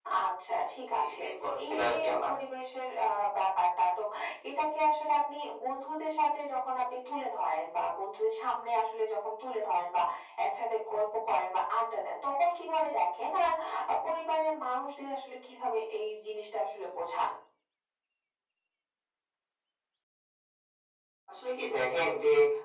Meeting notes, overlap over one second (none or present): present